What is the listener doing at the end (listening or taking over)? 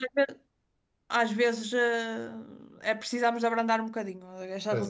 listening